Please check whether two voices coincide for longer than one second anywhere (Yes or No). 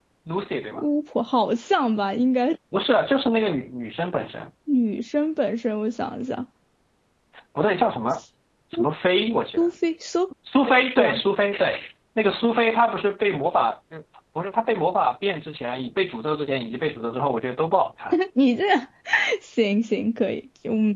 No